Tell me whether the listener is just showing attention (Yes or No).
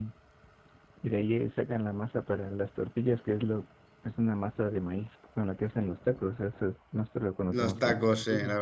No